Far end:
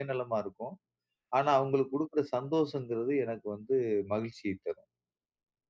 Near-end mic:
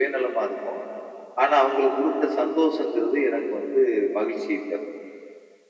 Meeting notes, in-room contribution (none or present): none